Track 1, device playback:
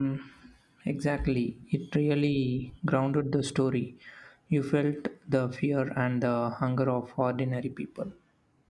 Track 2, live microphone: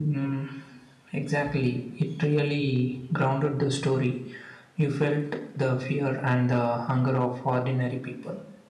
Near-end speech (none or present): none